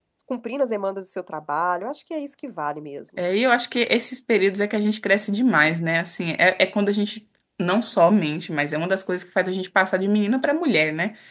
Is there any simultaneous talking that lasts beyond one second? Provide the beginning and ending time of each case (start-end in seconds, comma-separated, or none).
none